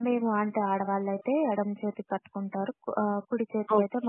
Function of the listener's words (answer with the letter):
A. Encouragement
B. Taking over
B